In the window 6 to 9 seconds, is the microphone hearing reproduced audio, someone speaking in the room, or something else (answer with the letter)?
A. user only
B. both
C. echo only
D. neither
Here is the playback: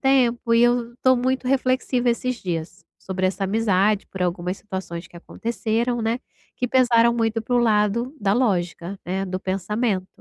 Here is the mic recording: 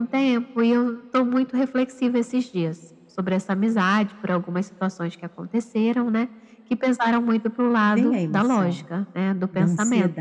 B